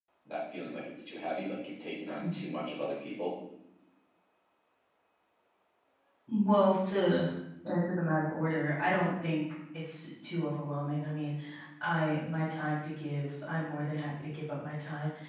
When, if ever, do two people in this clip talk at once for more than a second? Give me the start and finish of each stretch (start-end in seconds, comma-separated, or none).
none